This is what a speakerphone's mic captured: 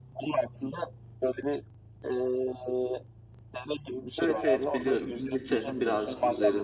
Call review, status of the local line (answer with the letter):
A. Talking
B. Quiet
A